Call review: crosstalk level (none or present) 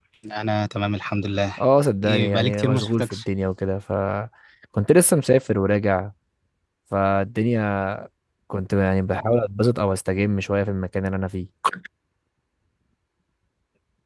present